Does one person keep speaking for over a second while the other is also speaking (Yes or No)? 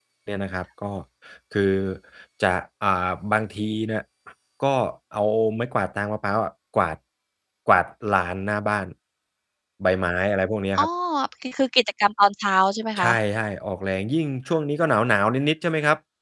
No